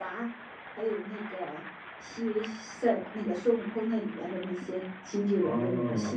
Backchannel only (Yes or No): No